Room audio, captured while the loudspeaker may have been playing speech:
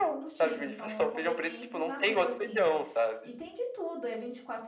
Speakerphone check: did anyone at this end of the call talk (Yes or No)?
Yes